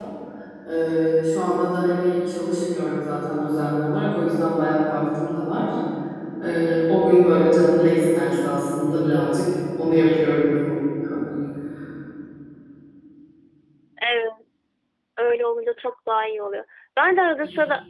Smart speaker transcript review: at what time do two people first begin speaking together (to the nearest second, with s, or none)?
none